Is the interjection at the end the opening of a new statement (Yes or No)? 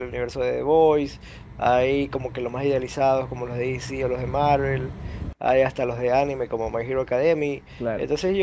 No